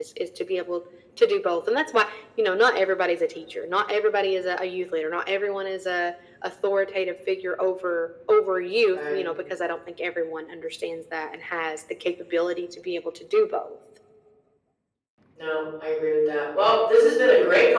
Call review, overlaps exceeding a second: none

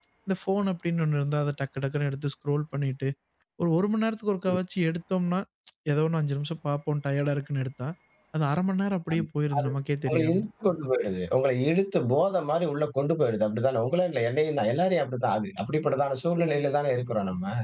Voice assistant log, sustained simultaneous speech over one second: none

